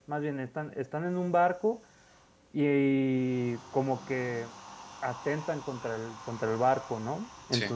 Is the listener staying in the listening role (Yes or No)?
Yes